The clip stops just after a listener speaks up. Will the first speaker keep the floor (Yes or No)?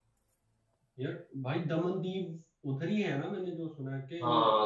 No